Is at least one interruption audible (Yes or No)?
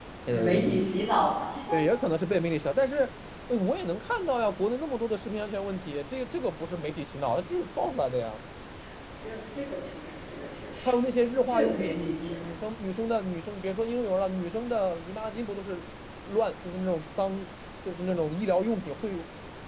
Yes